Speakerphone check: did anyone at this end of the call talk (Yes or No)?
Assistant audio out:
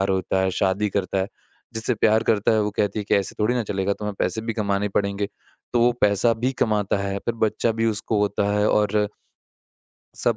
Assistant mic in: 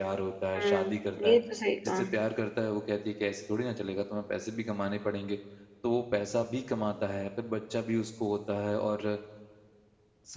Yes